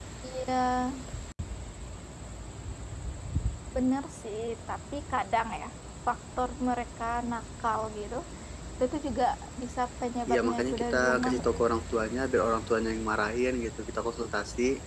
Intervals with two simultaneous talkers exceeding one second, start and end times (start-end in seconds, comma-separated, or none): 10.3-11.5